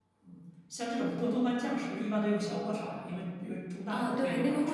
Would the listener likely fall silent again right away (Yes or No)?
No